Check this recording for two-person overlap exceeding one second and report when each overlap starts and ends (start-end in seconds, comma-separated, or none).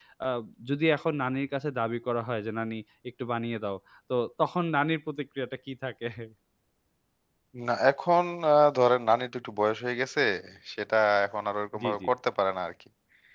none